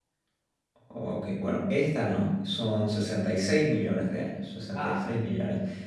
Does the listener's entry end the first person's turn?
No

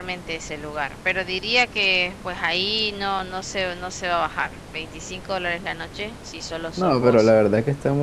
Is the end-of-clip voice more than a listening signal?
Yes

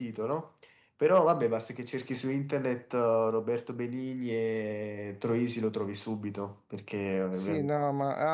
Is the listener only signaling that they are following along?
No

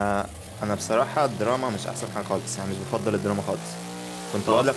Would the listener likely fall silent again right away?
Yes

